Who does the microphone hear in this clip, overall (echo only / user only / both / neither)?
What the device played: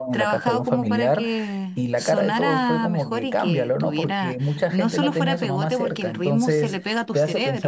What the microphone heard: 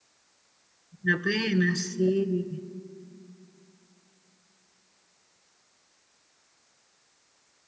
user only